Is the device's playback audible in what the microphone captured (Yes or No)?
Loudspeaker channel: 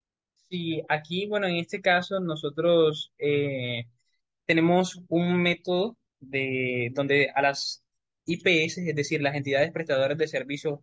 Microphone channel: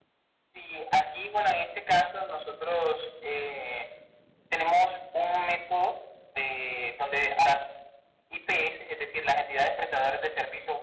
Yes